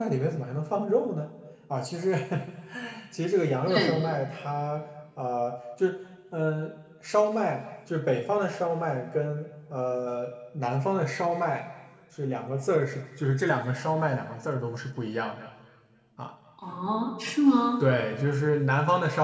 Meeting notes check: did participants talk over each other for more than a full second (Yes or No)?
No